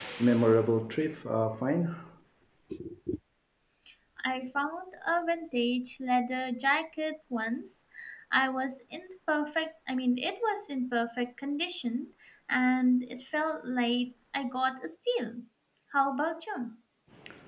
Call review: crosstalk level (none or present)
none